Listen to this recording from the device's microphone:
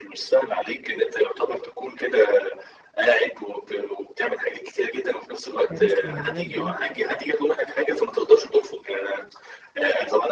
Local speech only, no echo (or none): كارثي بالنسبة لي آه،